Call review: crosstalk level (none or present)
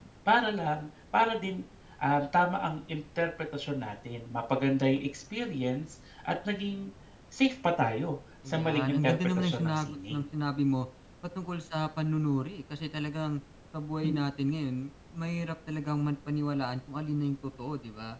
present